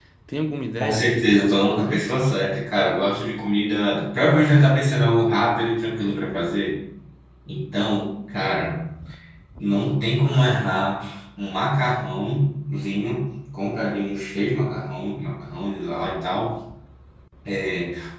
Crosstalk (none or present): present